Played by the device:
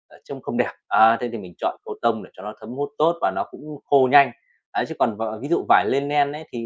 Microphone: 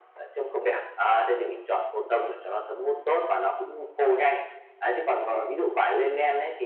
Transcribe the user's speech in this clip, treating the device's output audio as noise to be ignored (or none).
Ừm,